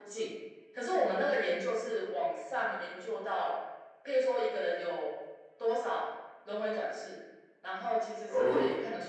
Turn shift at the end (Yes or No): No